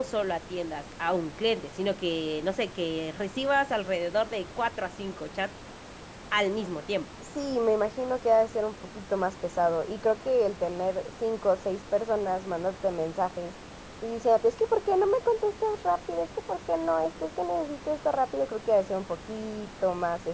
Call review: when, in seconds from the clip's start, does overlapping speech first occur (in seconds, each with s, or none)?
none